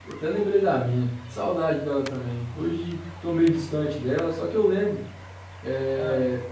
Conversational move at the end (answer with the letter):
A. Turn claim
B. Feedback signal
B